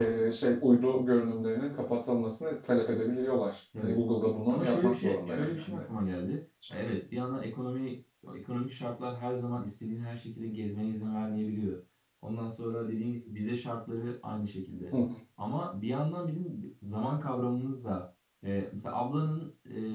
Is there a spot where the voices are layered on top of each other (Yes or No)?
Yes